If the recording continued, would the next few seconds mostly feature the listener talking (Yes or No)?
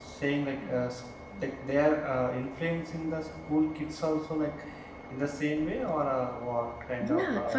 Yes